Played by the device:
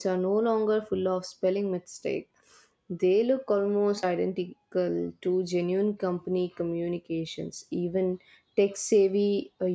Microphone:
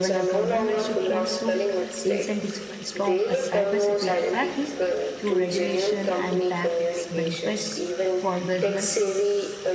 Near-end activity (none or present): present